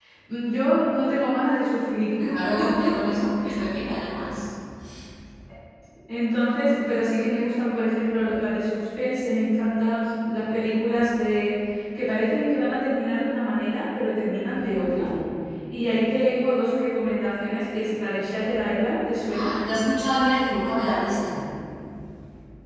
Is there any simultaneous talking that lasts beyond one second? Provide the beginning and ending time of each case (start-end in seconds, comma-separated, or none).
none